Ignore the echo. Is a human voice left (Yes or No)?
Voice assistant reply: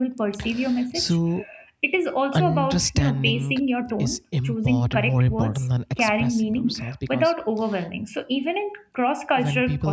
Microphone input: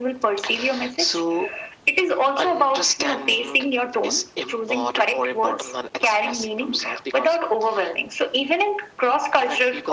No